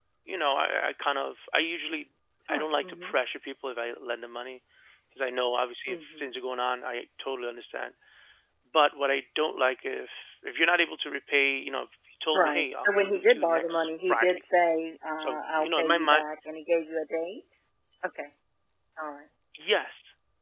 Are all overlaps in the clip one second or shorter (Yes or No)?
No